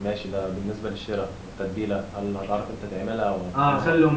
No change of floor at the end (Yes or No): No